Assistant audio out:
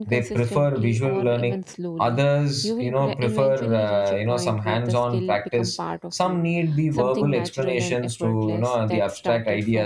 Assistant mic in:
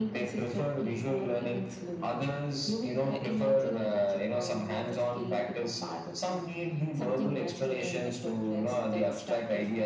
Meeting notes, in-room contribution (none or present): none